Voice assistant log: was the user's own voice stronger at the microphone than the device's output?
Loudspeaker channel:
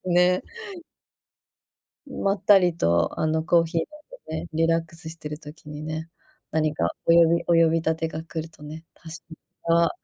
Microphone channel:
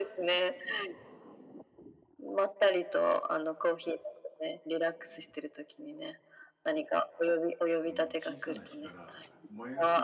No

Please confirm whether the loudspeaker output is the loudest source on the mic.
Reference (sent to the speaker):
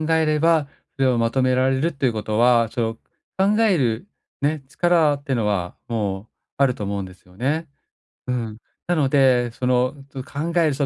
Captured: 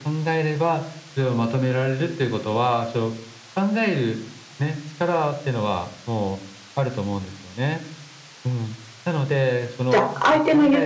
No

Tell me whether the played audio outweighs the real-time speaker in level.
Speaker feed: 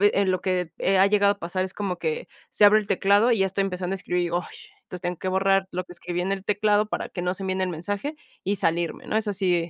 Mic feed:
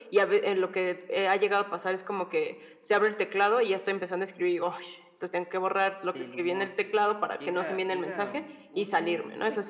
Yes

